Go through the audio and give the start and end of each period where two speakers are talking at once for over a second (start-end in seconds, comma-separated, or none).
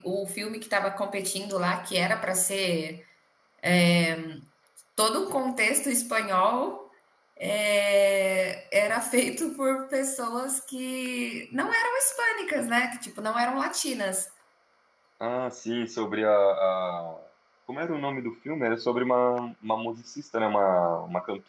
none